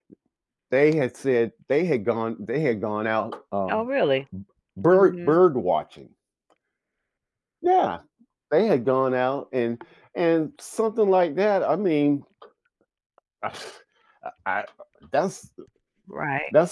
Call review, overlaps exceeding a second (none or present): none